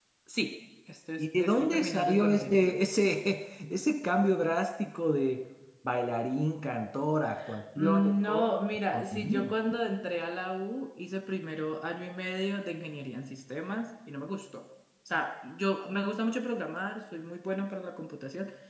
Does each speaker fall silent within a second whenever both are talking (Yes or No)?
No